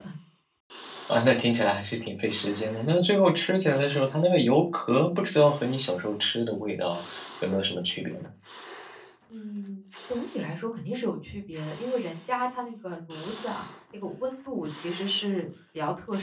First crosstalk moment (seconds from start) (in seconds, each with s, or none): none